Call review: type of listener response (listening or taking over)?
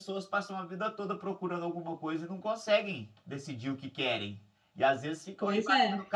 listening